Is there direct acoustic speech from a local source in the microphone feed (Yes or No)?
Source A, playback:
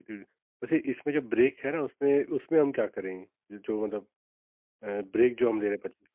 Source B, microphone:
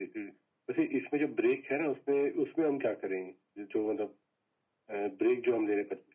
No